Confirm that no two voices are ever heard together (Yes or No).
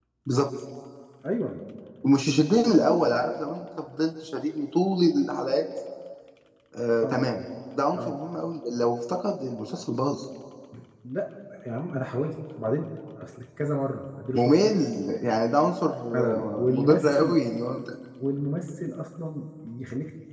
No